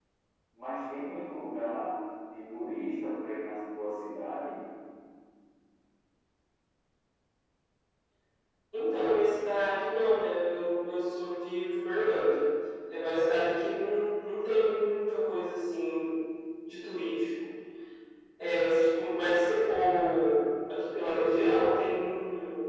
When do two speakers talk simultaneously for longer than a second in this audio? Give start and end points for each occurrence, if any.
none

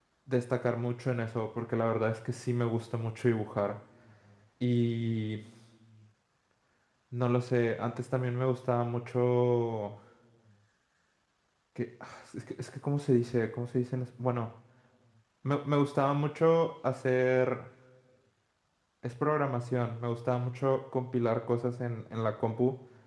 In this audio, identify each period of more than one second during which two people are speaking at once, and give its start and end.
none

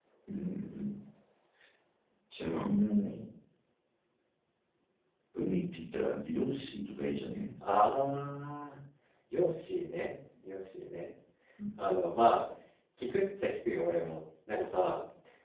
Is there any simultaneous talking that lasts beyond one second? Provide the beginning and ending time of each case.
none

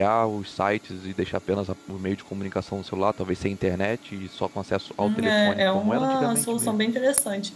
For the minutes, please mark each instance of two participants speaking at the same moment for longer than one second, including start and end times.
5.0-6.8

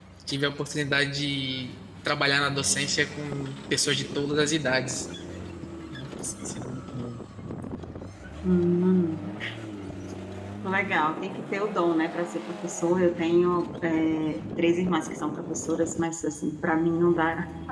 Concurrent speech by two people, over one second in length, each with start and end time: none

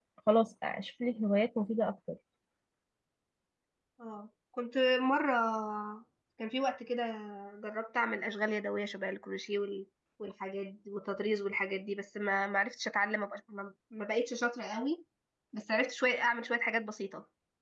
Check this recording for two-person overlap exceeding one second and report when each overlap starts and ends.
none

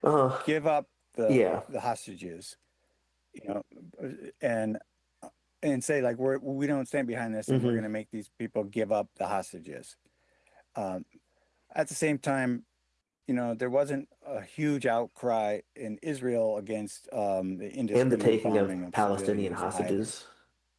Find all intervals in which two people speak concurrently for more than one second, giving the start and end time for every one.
17.9-20.1

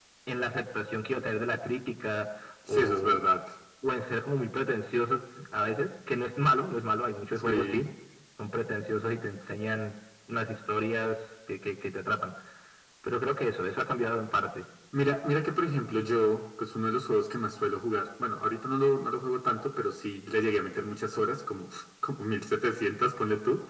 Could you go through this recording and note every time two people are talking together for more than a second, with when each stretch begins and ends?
none

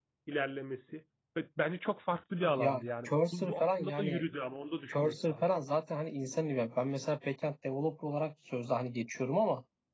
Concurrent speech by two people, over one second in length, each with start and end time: 2.6-4.2

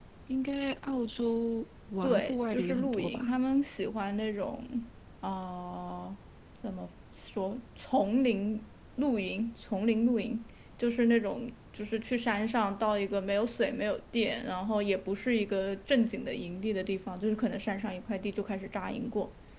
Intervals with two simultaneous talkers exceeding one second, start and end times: 2.0-3.3

